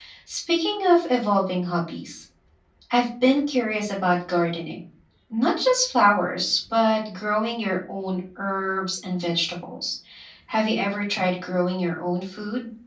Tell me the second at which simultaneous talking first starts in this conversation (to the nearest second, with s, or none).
none